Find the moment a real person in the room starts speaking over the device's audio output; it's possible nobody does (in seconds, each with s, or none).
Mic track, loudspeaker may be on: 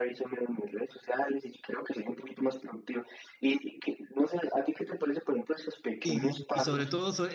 6.0 s